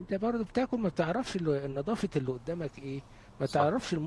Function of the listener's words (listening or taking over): listening